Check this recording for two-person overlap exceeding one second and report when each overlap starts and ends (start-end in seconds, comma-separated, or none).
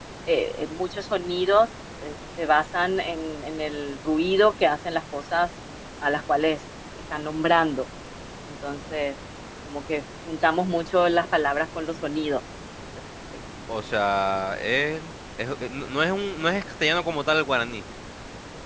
none